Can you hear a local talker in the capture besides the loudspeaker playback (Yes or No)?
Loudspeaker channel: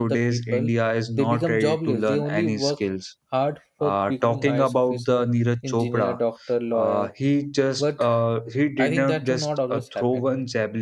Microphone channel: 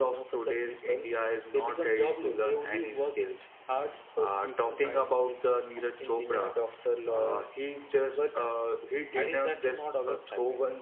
No